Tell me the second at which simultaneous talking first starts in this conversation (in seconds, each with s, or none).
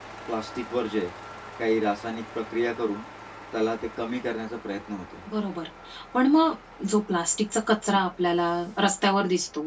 none